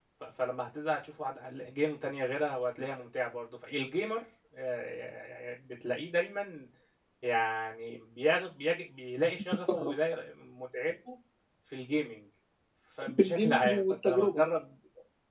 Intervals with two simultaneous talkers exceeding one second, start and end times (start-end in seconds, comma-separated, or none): 13.2-14.4